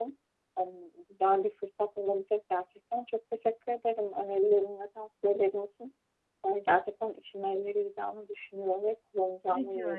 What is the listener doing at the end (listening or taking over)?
taking over